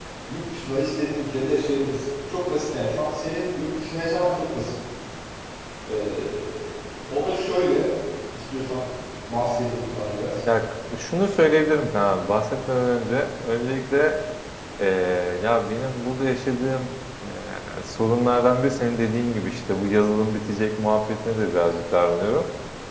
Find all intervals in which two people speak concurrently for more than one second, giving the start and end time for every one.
none

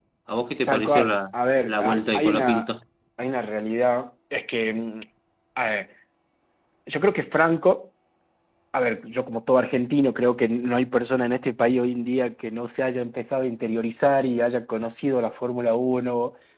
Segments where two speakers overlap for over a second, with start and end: 0.7-2.7

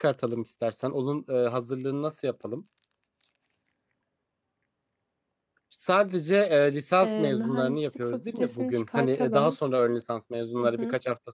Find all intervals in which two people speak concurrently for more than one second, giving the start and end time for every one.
7.0-9.6

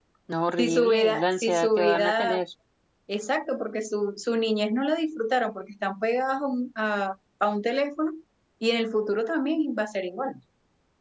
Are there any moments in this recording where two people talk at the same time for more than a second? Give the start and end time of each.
0.6-2.4

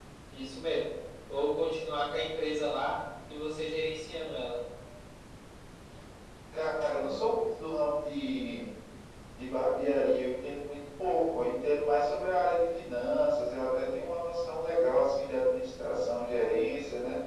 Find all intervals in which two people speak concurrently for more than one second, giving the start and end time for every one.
none

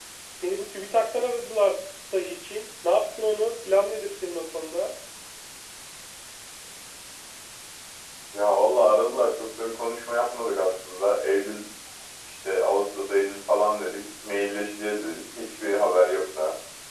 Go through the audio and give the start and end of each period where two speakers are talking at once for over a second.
none

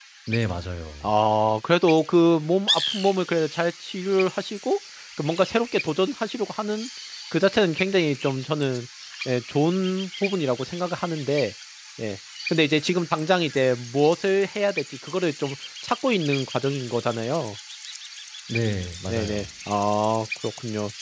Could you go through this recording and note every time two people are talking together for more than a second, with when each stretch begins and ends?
none

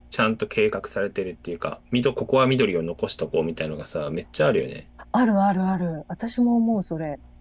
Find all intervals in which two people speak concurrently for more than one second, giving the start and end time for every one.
none

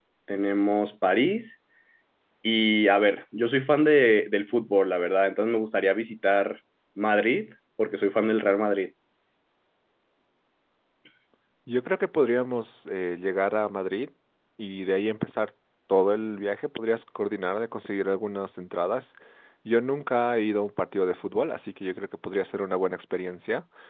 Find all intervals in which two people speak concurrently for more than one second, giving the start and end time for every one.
none

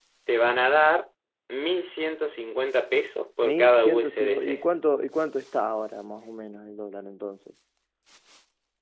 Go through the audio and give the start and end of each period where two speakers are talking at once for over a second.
3.4-4.6

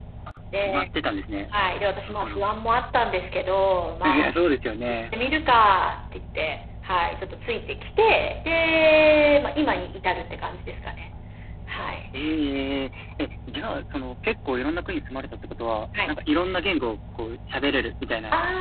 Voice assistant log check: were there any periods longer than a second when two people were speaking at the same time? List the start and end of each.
none

